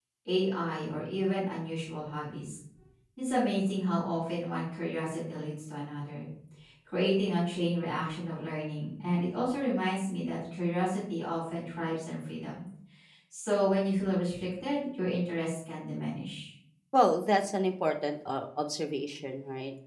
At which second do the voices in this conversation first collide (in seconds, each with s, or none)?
none